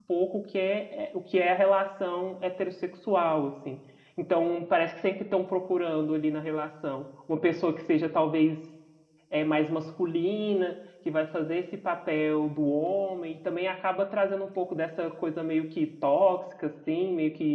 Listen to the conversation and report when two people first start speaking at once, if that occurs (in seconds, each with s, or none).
none